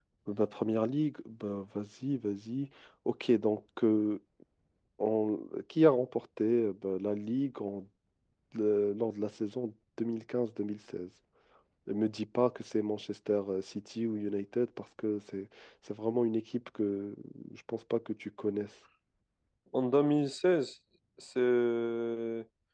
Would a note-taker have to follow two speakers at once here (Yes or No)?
No